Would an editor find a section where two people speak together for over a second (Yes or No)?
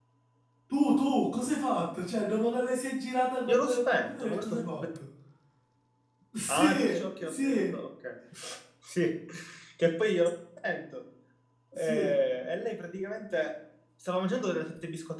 Yes